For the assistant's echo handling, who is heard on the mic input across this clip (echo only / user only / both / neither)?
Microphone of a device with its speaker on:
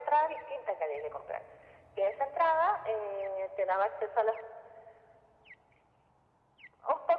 echo only